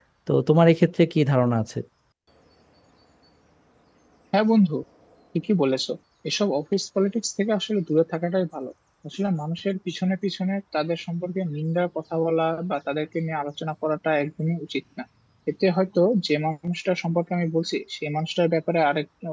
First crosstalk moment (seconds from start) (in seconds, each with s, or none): none